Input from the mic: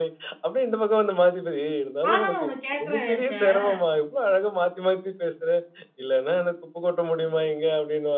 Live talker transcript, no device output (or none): ஆனா நான் ஒண்ணு கேட்கறேன்ன்னு நெனைச்சேன்.